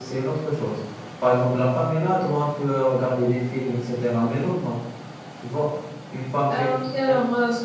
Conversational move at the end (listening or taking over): taking over